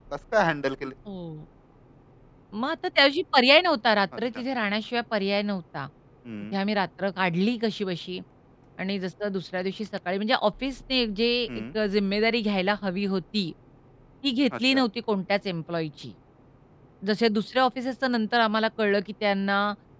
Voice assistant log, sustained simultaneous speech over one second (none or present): none